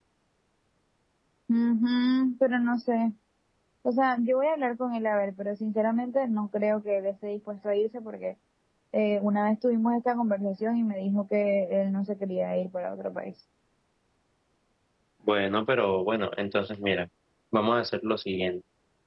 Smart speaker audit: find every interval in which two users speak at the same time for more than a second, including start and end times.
none

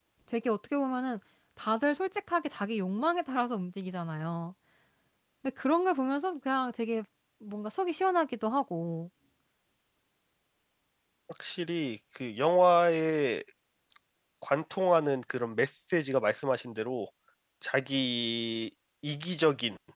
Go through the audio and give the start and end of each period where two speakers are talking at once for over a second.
none

